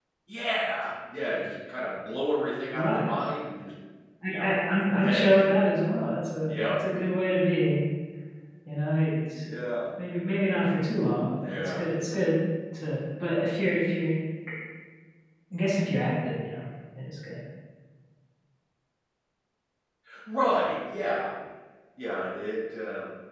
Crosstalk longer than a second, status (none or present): none